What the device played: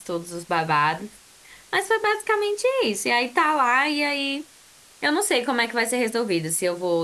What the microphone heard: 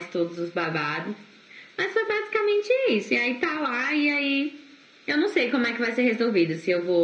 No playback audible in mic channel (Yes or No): No